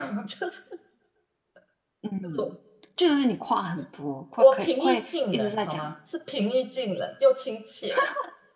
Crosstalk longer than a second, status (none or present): present